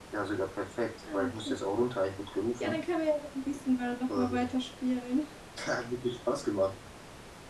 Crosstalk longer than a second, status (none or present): none